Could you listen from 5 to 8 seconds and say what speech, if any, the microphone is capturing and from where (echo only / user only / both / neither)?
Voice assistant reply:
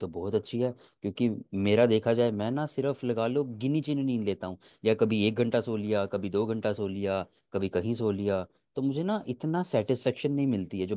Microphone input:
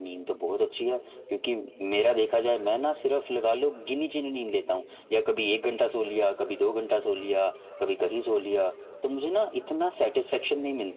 echo only